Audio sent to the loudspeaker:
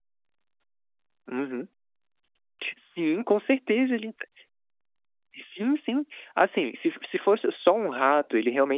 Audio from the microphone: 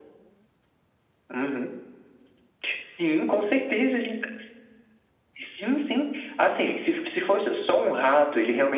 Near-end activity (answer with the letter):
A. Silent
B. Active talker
A